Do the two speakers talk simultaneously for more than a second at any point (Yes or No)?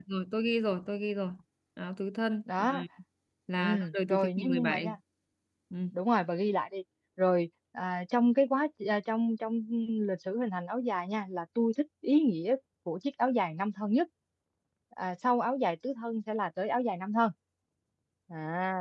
Yes